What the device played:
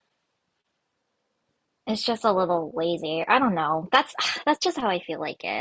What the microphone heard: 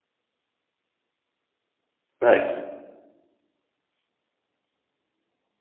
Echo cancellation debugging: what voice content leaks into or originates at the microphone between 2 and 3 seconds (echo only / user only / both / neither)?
user only